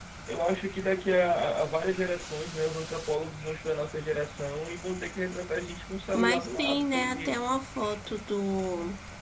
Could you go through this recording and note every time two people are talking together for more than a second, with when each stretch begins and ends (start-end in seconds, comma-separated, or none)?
6.1-7.4